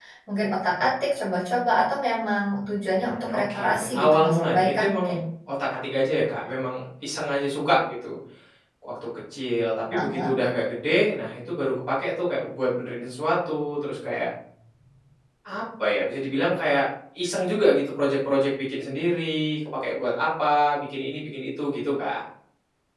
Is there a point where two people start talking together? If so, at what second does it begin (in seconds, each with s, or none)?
2.9 s